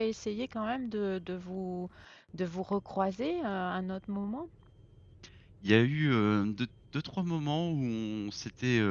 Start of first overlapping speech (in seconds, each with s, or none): none